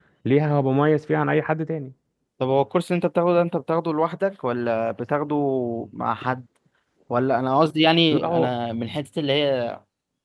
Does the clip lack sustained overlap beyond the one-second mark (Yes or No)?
Yes